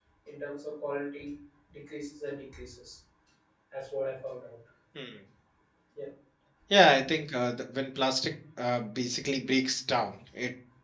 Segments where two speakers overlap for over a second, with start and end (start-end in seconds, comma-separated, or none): none